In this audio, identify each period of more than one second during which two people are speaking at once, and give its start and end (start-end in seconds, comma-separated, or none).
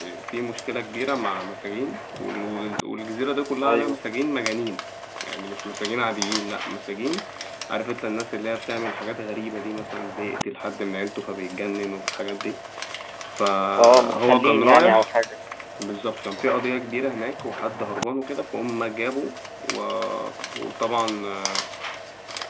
13.8-15.1